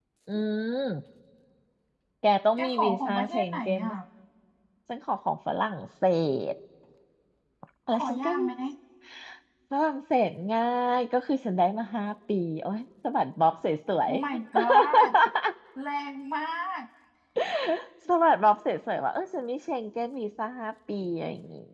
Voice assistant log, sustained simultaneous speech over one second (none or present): present